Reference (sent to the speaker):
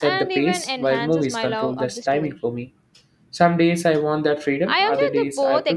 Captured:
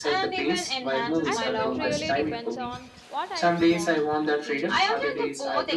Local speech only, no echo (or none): I think it really depends on what I want to feel